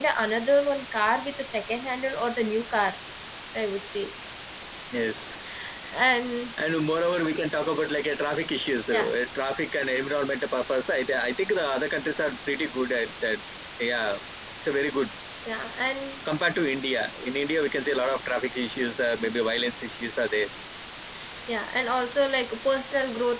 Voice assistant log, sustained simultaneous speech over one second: none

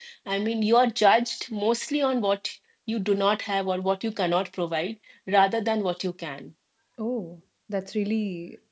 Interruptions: none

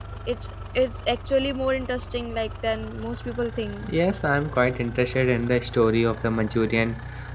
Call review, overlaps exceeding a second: none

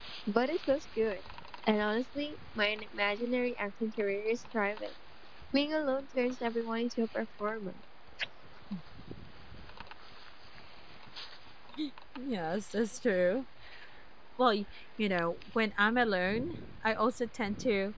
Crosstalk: none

